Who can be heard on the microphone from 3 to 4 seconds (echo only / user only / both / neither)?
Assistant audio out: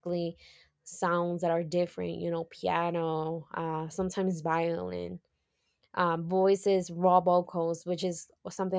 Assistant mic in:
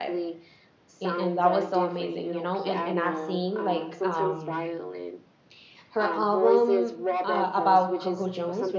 both